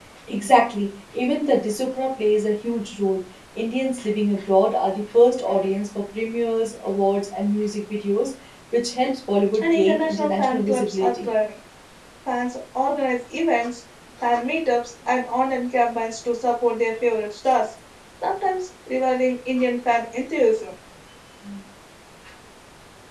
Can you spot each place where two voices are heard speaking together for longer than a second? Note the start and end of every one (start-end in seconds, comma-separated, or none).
9.6-11.3